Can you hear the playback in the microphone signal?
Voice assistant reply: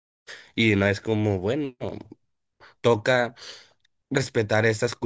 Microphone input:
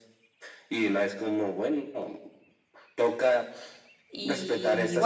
Yes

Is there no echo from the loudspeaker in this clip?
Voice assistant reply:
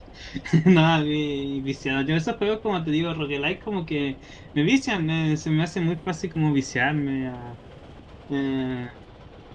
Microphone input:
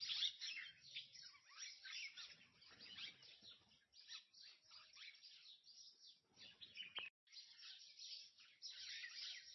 Yes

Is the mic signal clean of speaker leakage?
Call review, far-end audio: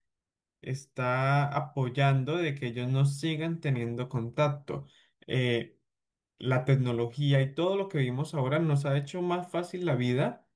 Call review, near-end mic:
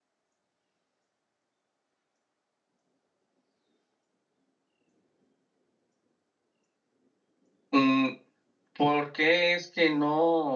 Yes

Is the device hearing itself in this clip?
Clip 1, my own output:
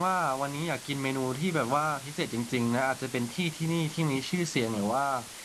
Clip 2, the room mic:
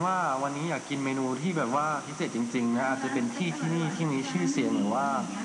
Yes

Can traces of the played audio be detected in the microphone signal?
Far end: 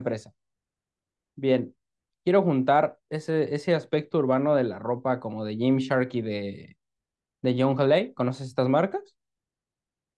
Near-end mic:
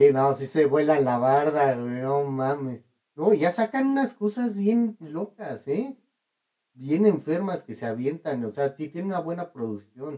No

